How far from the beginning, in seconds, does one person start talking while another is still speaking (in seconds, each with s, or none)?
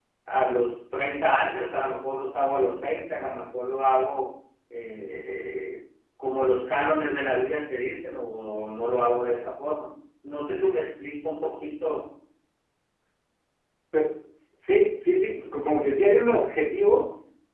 none